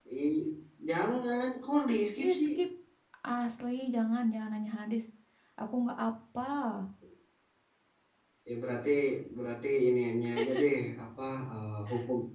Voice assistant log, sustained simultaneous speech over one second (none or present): none